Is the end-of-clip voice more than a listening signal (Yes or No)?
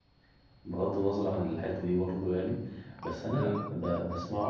No